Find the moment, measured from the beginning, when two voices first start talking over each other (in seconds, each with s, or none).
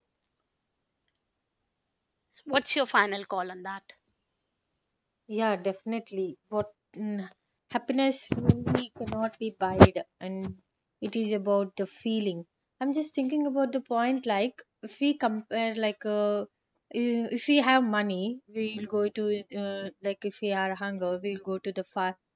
none